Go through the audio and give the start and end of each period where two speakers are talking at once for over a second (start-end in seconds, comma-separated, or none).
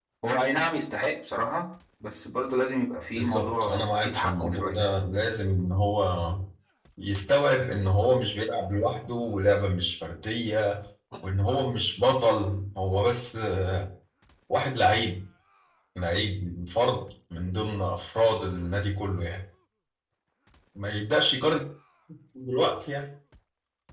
3.1-4.8